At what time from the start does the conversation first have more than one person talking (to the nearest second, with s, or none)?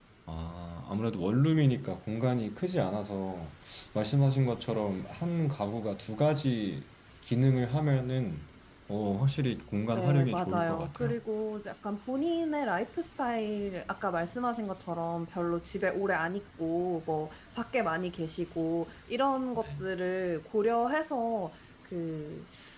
10 s